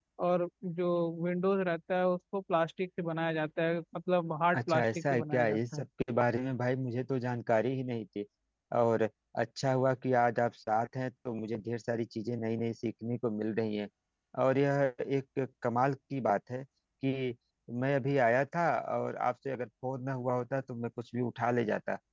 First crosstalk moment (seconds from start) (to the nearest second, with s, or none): 5 s